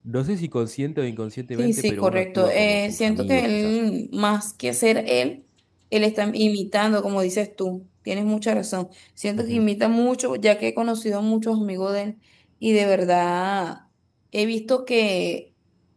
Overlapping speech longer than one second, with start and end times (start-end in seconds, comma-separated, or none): 1.6-3.8